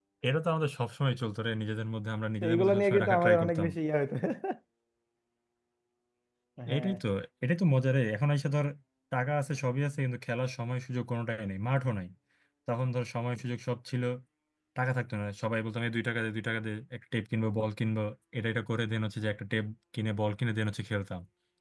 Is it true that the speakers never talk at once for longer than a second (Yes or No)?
No